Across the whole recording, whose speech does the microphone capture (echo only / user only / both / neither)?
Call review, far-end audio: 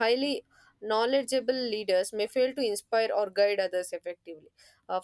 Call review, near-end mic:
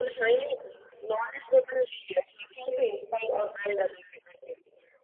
echo only